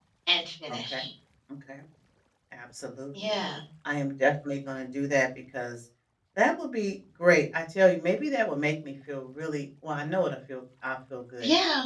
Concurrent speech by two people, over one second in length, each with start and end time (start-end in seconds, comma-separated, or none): none